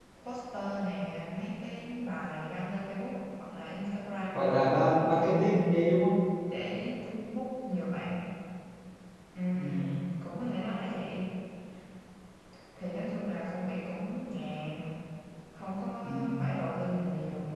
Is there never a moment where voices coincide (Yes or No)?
No